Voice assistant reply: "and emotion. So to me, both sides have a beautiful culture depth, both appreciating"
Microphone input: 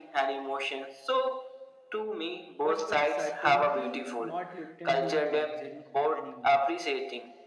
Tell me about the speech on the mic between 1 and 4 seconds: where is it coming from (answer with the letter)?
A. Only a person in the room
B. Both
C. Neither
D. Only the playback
B